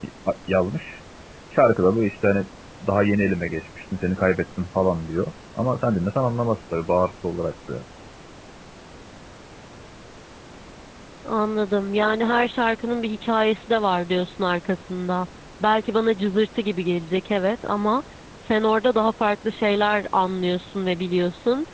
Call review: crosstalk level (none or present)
none